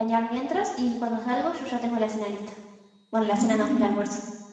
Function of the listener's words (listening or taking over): taking over